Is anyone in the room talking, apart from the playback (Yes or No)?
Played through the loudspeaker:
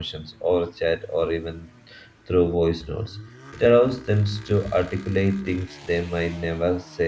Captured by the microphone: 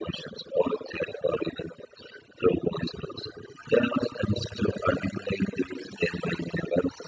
No